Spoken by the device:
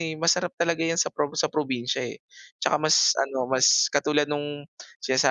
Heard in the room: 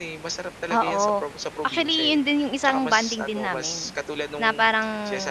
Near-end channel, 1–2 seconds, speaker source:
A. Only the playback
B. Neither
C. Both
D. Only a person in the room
C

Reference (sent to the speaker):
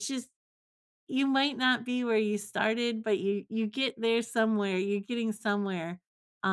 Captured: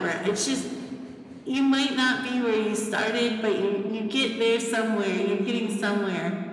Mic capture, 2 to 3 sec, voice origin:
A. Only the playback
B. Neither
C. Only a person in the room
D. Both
A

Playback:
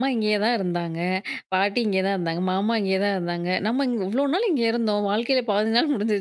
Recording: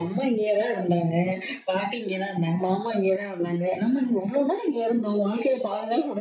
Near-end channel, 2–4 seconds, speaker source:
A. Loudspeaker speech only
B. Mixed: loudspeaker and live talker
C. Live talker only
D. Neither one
A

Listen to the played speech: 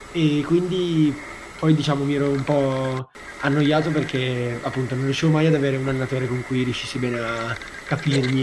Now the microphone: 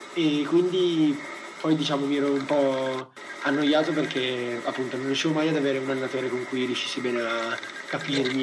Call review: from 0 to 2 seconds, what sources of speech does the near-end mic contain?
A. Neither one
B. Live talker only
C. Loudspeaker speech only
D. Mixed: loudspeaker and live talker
C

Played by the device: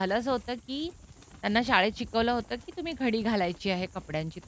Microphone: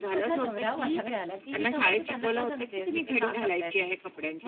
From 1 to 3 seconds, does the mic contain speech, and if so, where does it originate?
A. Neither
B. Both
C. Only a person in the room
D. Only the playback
B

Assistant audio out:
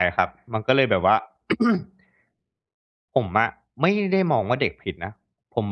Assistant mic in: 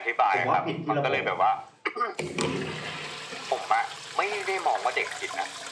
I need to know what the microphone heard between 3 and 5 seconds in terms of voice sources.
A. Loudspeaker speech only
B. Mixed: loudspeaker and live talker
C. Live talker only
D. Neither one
A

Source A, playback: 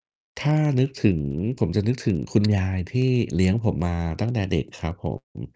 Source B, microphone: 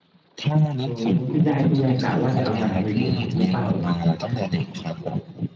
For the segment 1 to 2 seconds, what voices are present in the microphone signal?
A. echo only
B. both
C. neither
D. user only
B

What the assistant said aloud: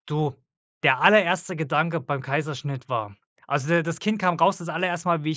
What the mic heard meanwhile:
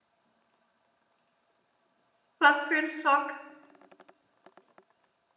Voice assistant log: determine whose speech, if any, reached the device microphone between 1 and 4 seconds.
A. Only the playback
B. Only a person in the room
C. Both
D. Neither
B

